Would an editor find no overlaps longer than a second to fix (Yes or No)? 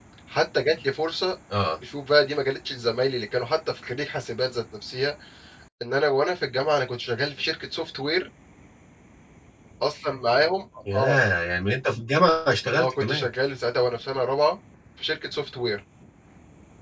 Yes